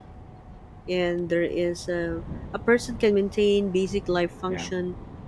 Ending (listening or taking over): listening